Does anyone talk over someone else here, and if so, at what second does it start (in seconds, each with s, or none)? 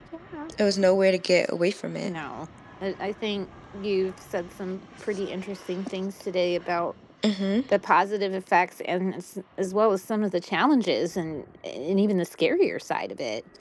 none